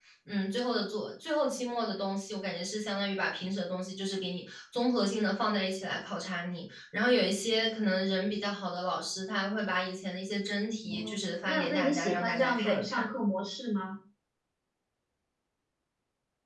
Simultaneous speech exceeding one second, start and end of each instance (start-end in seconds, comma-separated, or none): 10.9-13.1